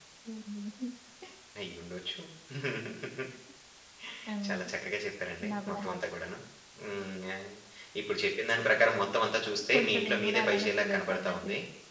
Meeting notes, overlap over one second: present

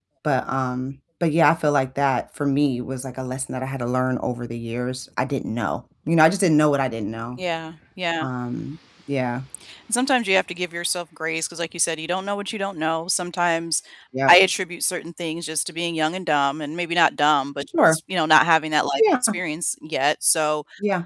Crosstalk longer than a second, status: none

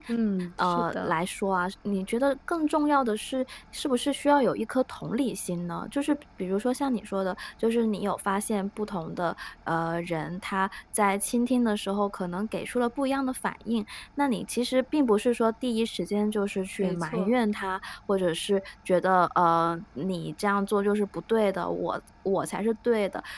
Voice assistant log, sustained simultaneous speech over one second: none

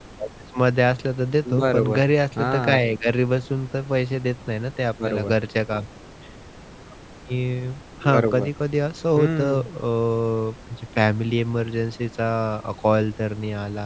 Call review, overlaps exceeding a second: present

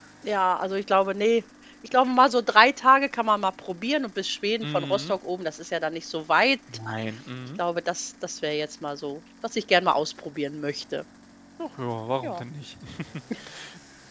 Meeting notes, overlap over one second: none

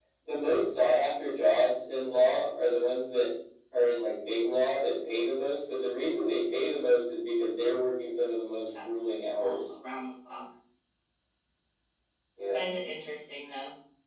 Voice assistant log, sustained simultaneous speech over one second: none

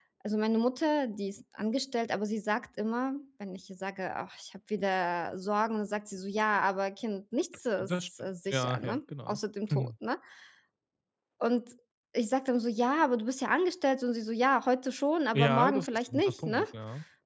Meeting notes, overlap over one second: present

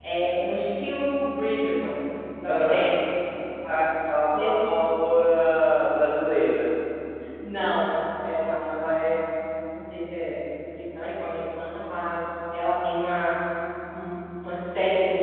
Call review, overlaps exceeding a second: none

